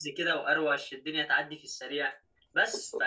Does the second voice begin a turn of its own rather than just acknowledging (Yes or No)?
No